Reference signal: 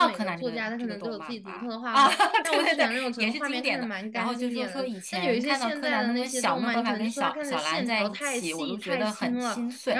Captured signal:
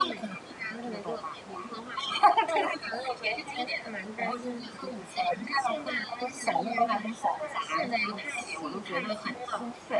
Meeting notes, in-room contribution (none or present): none